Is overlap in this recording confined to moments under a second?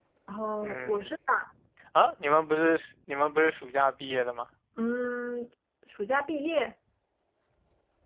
Yes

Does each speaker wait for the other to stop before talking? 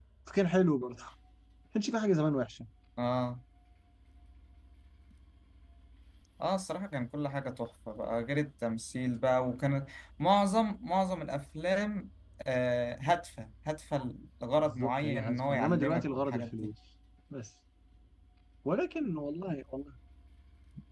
No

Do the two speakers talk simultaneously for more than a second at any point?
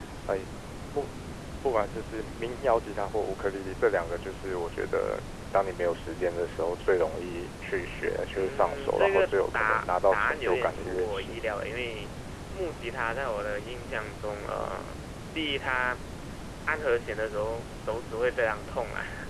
Yes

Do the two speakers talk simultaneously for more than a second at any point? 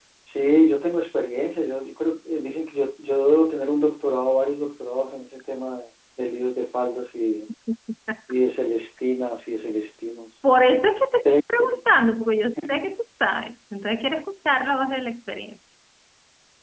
No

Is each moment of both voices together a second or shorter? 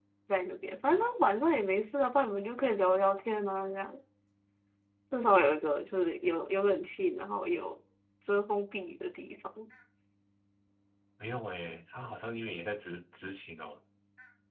Yes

